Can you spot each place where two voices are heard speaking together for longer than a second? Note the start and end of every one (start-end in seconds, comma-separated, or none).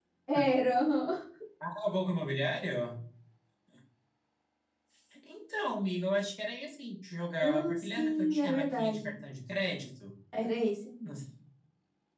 7.4-9.2